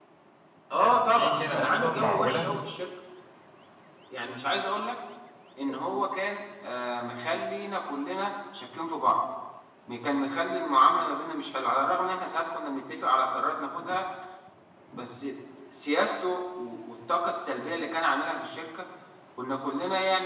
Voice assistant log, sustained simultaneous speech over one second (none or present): present